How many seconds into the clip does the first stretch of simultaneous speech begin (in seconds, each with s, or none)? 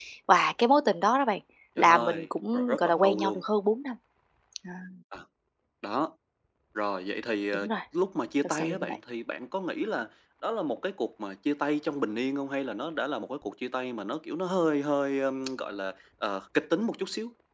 1.8 s